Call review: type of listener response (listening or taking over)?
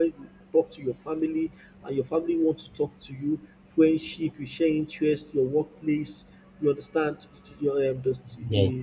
listening